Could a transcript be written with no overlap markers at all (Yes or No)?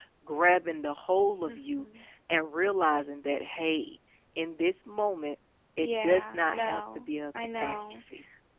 No